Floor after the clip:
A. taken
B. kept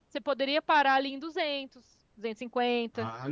A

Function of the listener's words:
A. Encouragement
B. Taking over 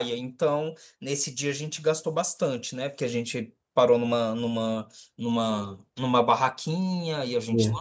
A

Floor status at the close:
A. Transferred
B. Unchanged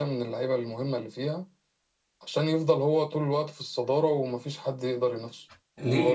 A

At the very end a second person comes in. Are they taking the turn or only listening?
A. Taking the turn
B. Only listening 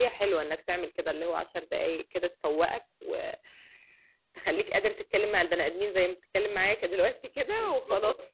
A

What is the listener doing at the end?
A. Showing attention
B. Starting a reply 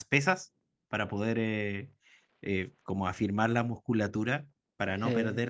A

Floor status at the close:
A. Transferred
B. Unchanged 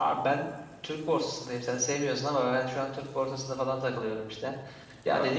B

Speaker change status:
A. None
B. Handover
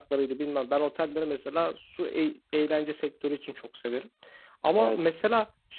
A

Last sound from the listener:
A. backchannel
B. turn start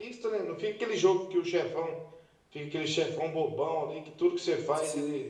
A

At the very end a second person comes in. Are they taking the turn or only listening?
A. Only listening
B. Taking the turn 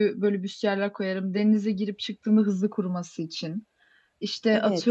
A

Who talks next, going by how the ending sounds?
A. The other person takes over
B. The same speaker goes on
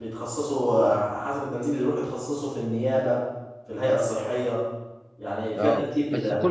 A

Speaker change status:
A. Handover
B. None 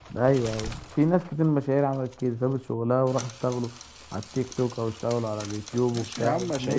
A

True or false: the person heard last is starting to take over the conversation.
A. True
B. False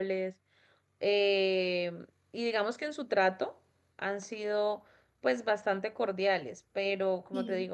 B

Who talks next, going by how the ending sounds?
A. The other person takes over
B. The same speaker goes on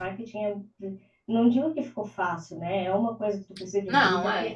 B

